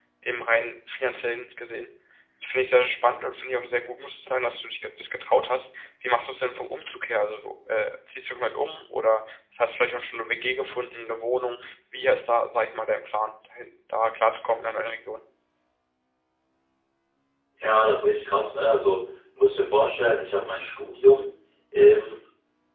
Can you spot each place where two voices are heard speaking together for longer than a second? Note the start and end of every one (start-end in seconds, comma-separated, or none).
none